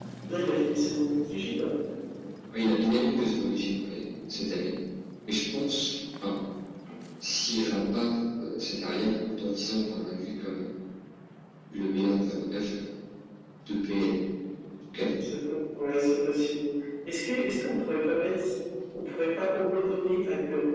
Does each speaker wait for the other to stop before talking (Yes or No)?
Yes